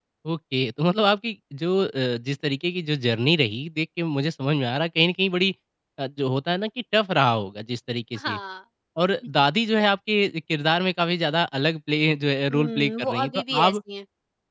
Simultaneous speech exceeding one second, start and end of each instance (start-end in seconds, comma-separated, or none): 12.5-13.8